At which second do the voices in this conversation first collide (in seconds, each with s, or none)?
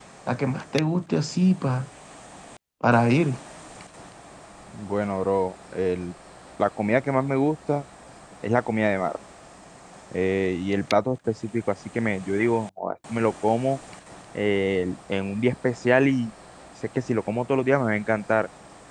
none